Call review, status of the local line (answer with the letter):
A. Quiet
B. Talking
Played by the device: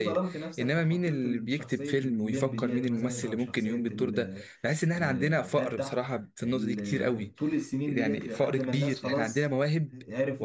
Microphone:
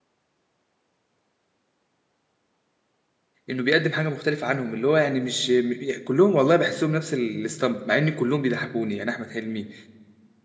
B